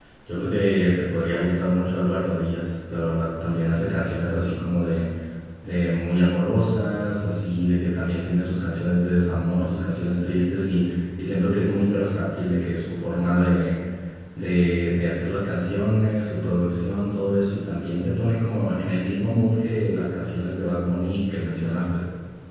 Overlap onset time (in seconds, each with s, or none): none